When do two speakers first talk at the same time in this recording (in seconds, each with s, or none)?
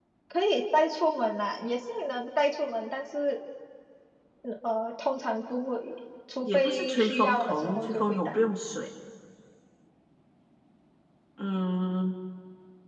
6.4 s